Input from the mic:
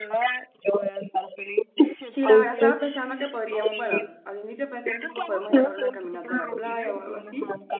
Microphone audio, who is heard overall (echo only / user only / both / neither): both